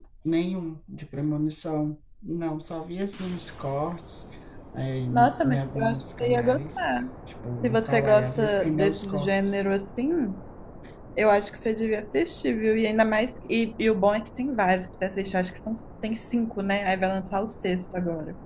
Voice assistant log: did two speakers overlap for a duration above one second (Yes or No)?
Yes